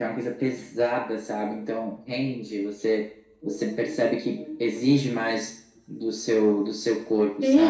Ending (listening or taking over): taking over